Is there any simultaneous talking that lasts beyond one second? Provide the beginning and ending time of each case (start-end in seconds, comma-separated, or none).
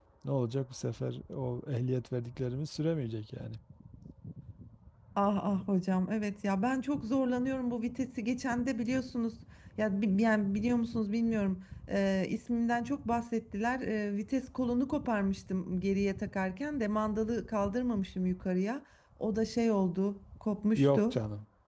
none